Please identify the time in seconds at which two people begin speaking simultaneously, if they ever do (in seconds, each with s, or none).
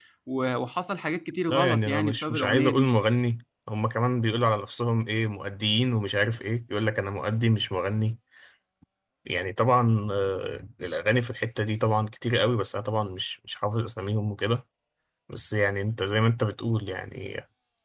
1.5 s